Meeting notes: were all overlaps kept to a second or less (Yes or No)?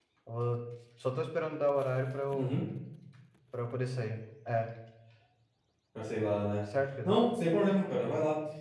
Yes